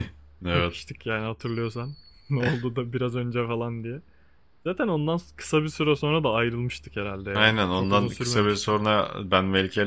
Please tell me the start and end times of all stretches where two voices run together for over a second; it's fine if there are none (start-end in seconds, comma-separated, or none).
7.3-8.8